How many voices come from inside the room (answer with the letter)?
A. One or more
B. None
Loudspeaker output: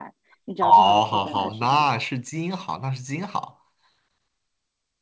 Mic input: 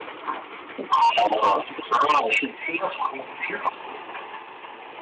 B